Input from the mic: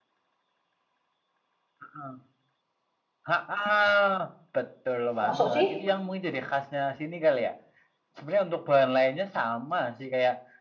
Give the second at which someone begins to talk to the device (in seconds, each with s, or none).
5.2 s